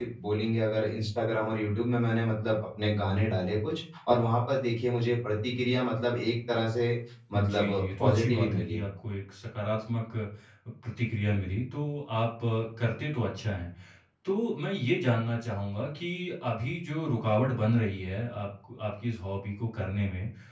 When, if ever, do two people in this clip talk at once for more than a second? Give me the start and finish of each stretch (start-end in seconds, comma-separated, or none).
7.3-8.8